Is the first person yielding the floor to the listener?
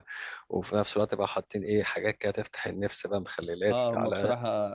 Yes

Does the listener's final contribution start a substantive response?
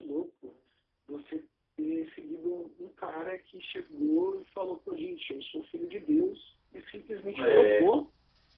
No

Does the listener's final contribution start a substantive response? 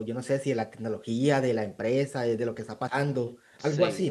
Yes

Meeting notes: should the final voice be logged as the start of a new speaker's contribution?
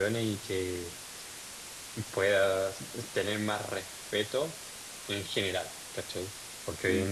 No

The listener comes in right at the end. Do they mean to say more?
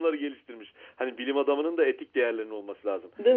No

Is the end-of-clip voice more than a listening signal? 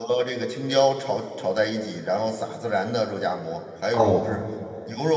No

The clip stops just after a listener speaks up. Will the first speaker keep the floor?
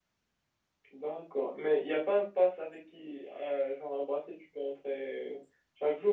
No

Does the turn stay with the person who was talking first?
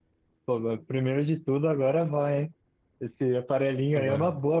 Yes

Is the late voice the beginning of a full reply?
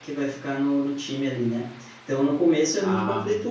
No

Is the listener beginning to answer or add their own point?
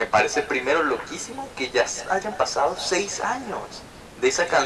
No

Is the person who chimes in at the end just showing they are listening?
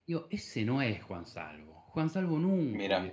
Yes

